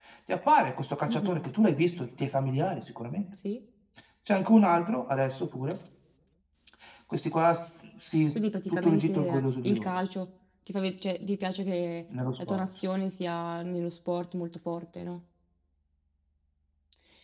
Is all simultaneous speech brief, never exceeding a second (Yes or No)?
No